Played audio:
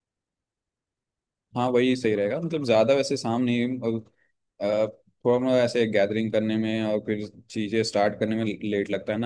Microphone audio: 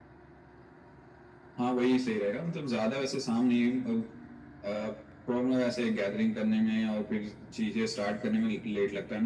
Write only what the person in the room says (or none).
none